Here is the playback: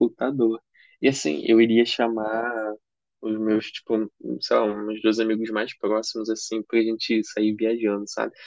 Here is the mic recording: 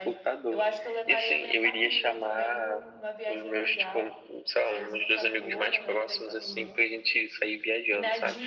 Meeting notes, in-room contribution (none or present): present